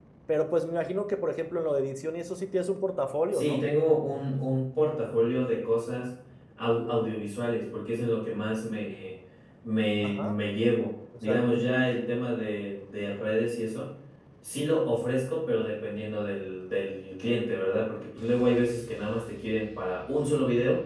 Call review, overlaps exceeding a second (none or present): none